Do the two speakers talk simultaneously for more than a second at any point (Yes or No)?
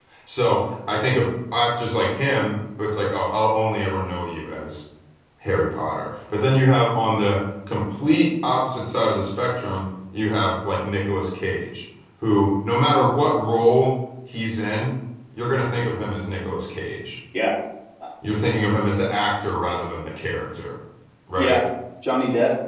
No